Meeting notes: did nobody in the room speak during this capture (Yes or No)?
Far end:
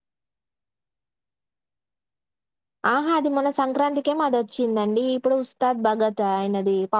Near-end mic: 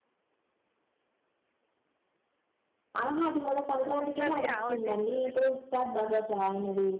No